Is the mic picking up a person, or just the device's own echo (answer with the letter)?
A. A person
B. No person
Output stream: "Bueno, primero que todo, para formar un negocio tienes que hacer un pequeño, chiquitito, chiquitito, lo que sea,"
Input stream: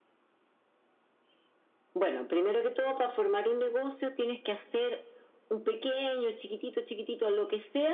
B